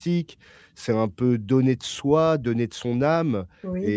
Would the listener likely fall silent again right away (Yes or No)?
Yes